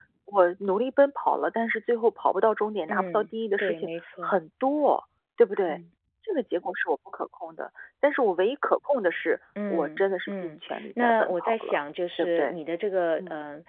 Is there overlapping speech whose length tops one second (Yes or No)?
Yes